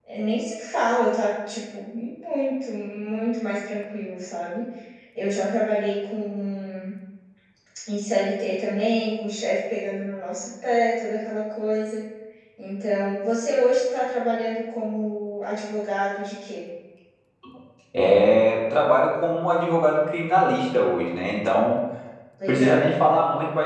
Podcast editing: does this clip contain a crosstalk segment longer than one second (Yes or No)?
No